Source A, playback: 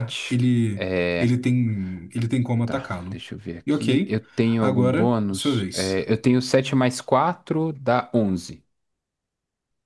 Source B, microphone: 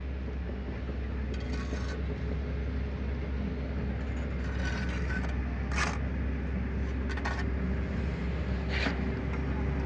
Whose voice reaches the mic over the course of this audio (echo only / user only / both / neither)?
neither